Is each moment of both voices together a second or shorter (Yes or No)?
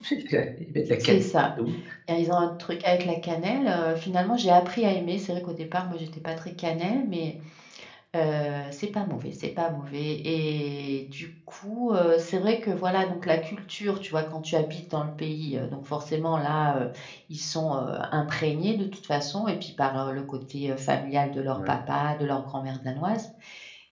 Yes